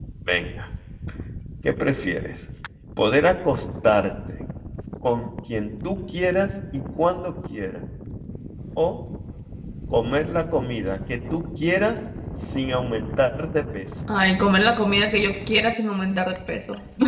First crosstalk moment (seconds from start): none

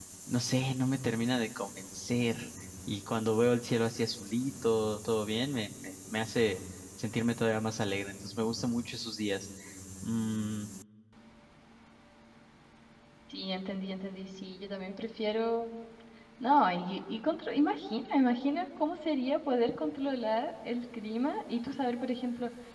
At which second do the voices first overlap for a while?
none

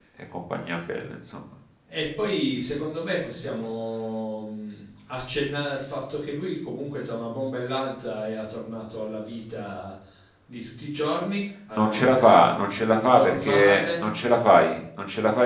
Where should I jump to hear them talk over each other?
11.8 s

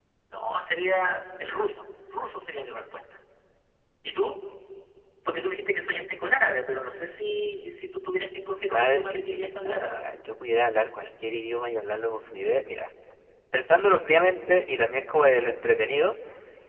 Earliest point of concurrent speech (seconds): 8.5 s

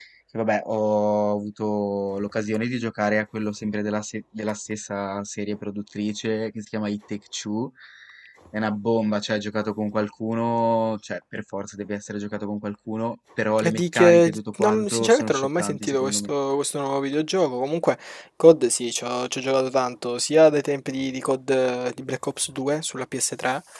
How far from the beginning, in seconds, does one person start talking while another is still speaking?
13.6 s

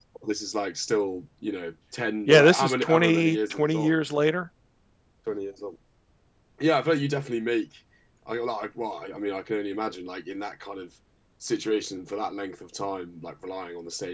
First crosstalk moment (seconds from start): 2.3 s

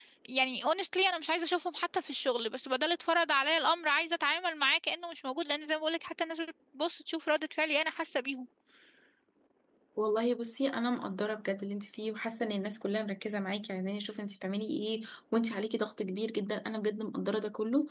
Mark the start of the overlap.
none

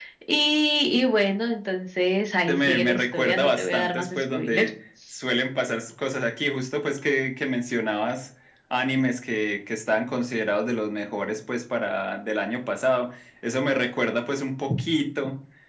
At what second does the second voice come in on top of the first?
2.5 s

